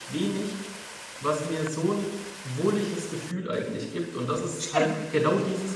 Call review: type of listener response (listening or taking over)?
listening